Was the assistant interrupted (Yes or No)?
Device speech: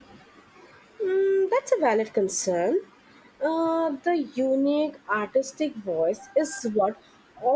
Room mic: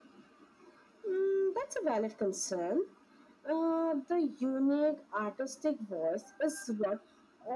No